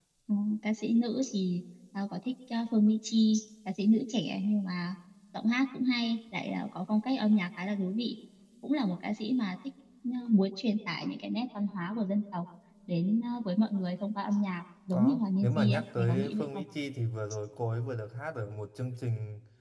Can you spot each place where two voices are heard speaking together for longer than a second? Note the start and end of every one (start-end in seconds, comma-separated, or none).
14.9-16.6